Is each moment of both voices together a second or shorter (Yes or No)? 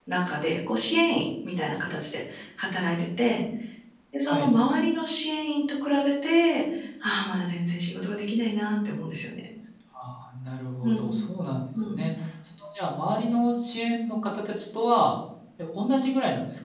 Yes